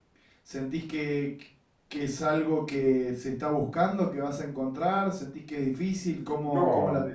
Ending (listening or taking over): taking over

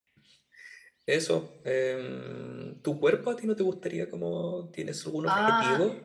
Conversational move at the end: taking over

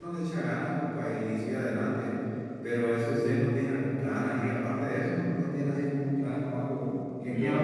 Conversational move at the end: taking over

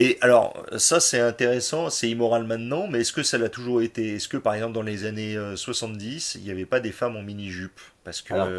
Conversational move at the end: listening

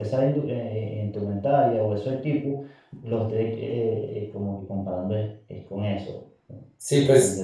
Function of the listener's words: taking over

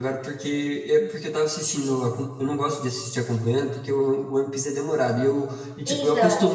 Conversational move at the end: listening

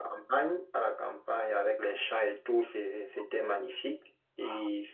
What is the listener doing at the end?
listening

